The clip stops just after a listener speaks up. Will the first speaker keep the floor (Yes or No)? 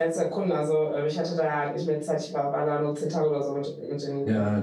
No